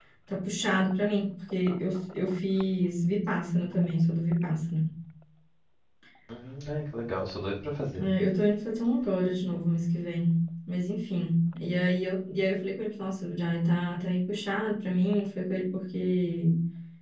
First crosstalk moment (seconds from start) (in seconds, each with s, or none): none